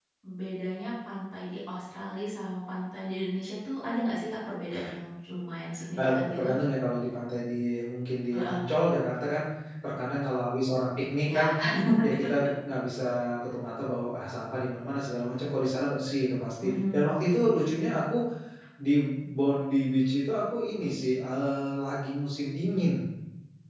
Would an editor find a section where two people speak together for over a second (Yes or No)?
No